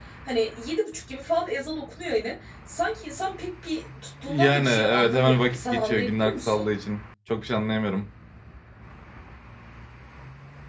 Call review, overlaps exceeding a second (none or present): present